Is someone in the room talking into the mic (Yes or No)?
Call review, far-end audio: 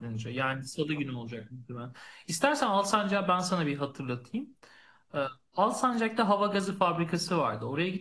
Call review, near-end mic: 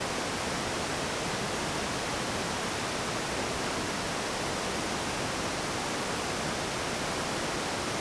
No